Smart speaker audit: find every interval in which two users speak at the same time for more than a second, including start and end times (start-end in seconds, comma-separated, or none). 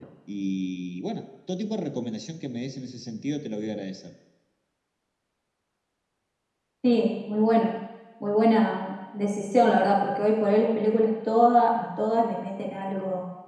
none